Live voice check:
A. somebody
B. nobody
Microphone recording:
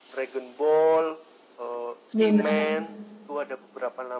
A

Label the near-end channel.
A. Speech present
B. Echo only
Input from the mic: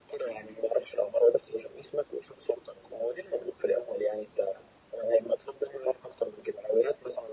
B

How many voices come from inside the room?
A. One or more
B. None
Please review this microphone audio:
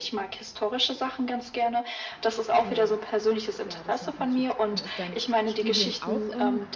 A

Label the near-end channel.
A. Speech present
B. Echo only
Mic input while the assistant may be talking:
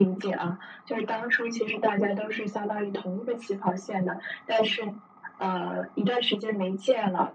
B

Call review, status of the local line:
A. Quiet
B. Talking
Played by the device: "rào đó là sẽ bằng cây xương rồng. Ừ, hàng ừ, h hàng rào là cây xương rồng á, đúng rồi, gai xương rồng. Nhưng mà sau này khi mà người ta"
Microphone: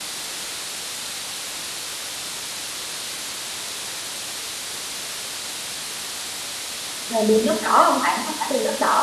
B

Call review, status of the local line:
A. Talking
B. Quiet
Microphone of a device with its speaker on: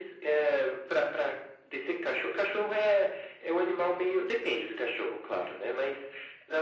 B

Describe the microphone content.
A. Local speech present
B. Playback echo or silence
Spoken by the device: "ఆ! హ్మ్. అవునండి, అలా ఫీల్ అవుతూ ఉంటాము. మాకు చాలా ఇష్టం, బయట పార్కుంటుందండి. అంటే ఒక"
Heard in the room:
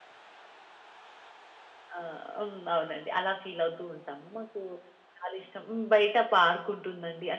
B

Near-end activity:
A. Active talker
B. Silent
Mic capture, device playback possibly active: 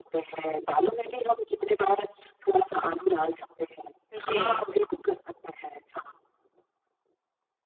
A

